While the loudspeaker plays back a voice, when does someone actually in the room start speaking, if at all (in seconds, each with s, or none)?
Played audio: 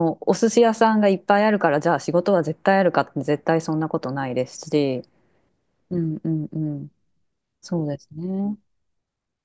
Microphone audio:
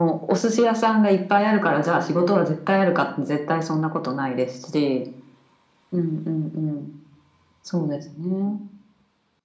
none